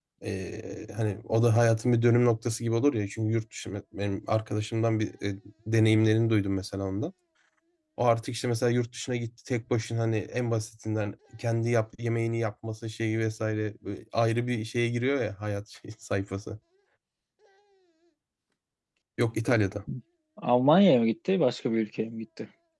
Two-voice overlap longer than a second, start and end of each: none

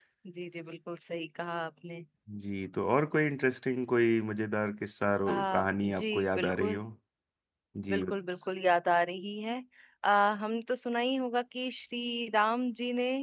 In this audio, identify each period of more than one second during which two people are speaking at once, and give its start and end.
5.3-6.8

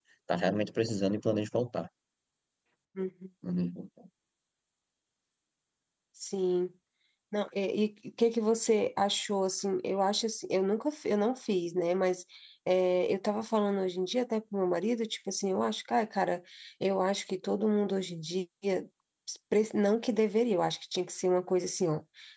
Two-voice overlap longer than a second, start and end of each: none

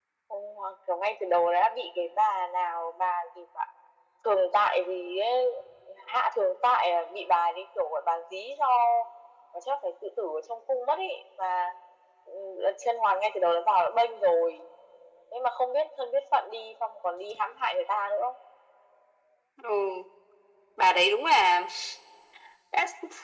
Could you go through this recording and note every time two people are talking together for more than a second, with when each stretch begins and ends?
none

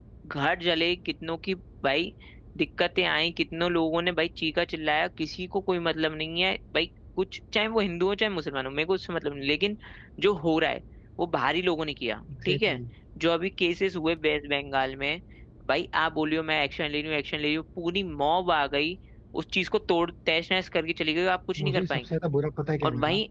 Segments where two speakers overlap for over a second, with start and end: none

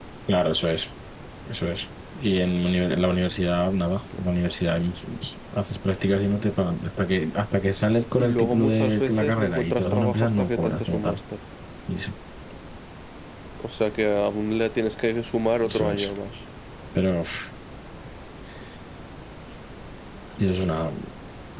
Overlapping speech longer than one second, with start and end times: 8.2-11.2

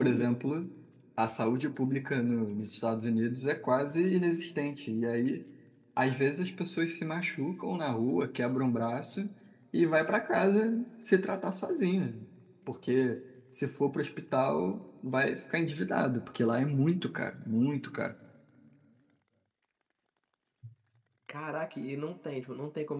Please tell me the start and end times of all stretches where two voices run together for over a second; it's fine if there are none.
none

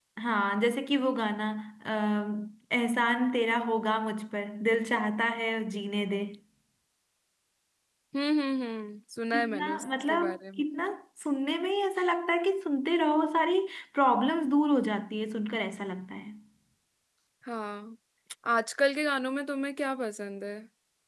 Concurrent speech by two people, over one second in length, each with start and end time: 9.3-10.6

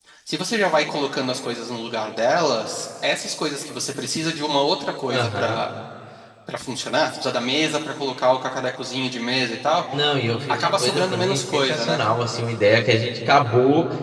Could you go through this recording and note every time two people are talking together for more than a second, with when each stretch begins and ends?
10.5-12.0

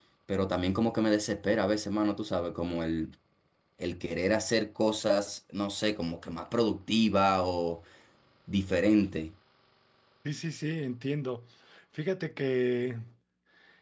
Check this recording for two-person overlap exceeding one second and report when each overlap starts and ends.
none

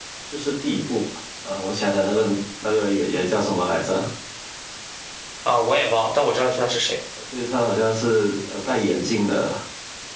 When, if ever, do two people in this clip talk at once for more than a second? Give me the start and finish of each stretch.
none

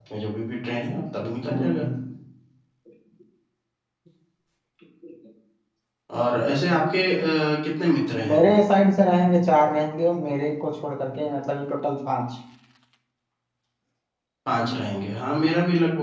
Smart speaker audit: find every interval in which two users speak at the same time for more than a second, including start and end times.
none

